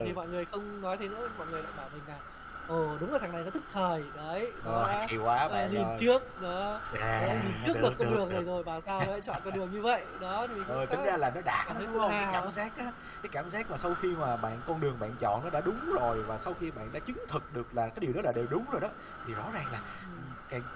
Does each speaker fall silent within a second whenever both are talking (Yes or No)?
No